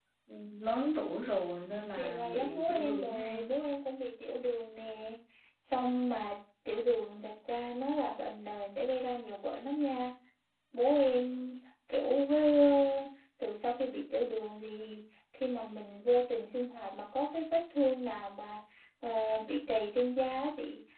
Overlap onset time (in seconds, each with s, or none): 2.0 s